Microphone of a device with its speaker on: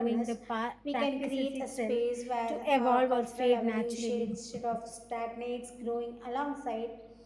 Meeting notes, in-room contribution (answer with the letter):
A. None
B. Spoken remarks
B